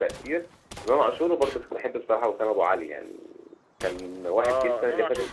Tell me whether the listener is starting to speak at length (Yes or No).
Yes